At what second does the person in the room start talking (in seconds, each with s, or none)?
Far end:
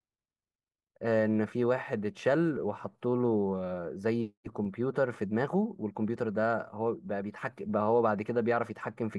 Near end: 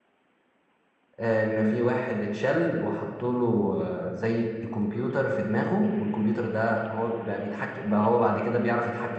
none